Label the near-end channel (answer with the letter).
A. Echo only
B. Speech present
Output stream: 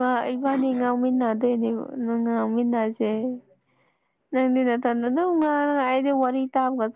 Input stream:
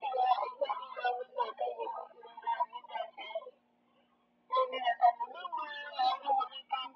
A